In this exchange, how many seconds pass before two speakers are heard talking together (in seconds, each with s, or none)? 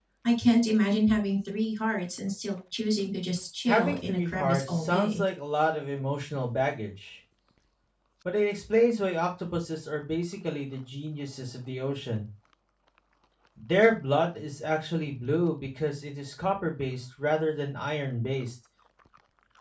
3.7 s